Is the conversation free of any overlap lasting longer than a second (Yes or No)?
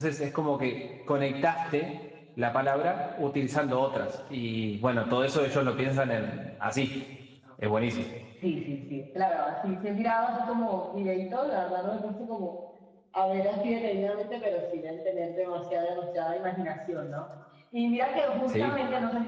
Yes